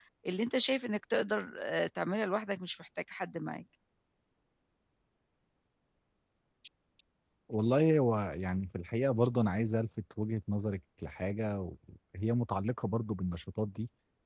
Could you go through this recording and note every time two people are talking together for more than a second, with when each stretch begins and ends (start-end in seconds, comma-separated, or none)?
none